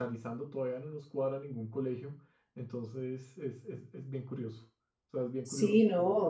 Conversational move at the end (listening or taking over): taking over